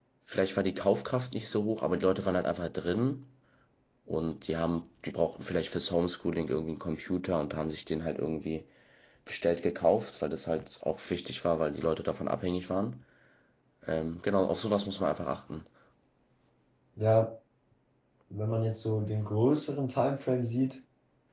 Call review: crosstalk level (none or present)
none